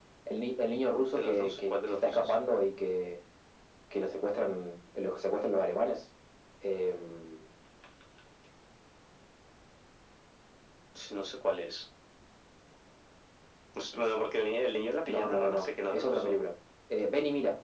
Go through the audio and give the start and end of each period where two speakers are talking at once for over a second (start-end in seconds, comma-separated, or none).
1.1-2.4, 15.1-16.4